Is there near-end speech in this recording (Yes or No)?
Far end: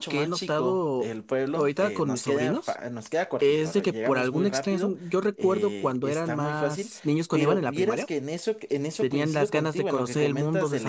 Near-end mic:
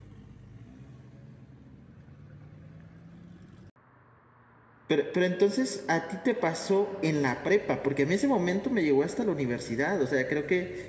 Yes